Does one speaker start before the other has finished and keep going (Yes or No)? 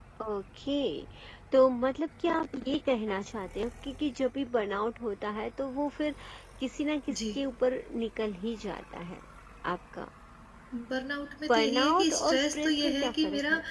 Yes